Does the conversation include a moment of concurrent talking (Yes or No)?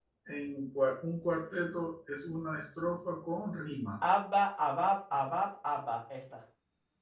No